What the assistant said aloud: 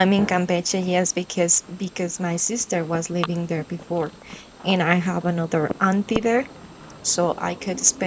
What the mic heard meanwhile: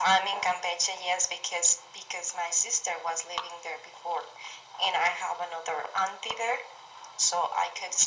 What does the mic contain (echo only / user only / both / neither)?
echo only